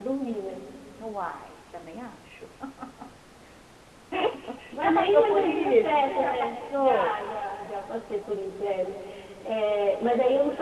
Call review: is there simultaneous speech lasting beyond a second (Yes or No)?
Yes